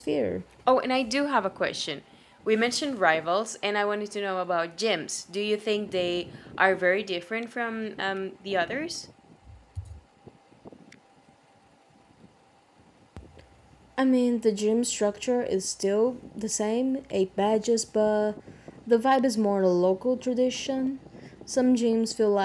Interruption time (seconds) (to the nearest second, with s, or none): none